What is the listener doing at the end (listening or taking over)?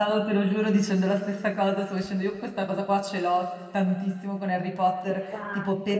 listening